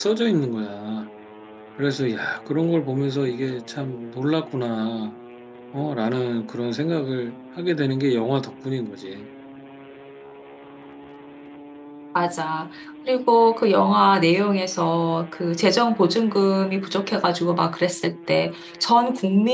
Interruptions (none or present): none